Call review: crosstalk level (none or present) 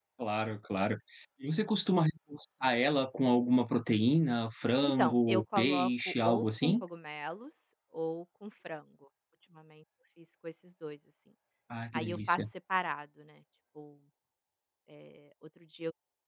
present